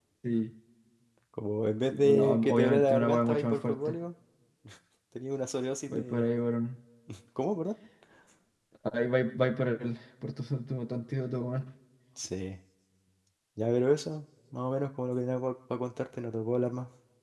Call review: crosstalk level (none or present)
present